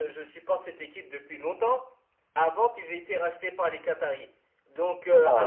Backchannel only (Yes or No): Yes